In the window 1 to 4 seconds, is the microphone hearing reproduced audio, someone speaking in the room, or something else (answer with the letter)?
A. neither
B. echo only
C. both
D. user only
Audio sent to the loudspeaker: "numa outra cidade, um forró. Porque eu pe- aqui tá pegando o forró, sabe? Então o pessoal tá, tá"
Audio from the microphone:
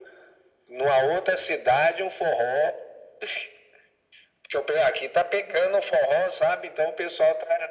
B